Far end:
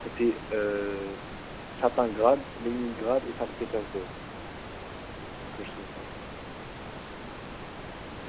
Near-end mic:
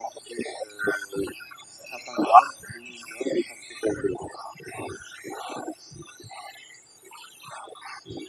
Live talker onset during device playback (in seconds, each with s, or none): none